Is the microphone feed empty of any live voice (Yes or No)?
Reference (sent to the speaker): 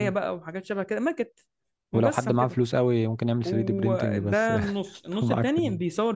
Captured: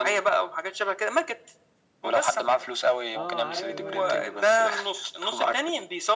No